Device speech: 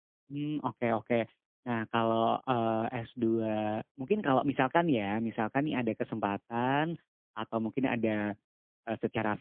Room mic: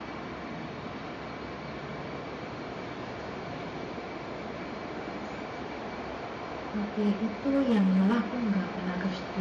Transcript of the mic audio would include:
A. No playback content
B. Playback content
A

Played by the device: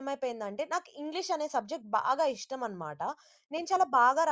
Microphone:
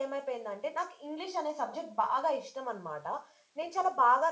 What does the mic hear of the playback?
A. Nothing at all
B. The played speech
B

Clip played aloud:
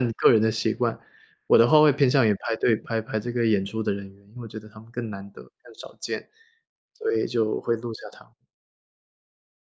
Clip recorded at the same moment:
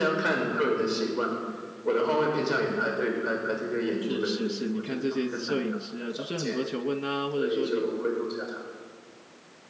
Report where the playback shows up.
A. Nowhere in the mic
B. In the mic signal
B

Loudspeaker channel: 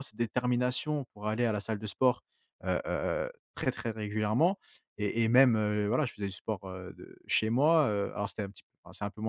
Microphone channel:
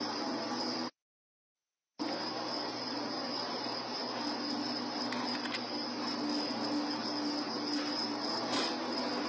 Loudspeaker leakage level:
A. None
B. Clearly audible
A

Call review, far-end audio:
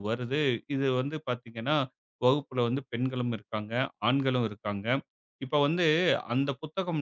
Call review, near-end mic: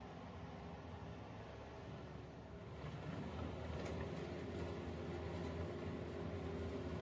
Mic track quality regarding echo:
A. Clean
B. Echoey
A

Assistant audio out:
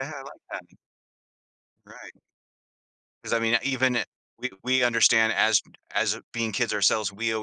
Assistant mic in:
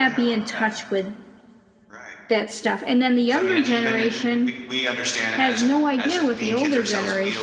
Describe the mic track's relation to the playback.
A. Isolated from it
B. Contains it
B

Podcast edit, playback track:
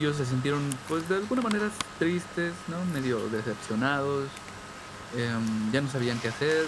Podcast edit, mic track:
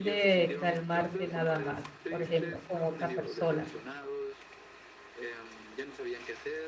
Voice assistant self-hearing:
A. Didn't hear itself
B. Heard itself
B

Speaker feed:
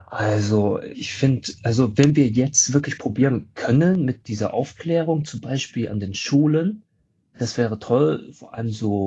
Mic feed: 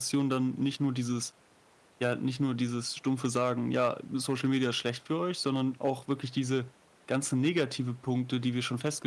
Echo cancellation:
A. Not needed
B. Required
A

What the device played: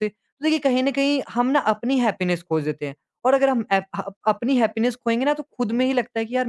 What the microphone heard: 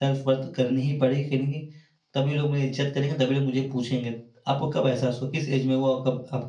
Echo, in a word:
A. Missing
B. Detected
A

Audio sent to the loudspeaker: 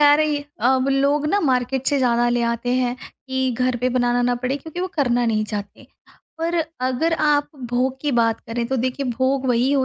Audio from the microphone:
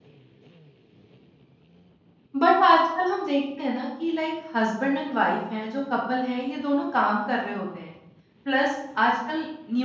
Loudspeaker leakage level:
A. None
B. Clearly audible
A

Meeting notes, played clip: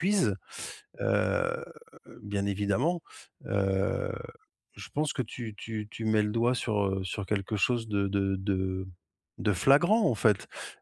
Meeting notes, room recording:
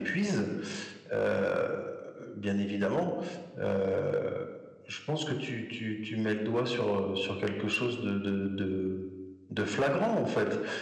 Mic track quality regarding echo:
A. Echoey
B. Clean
A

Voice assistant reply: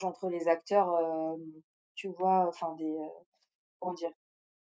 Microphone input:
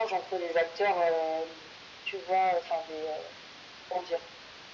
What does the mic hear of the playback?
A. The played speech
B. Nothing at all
A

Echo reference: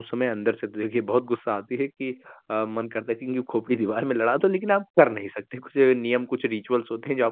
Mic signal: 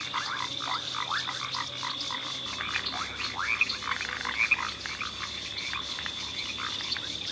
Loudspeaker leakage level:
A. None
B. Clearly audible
A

